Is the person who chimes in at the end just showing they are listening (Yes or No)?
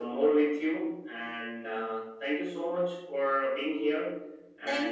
No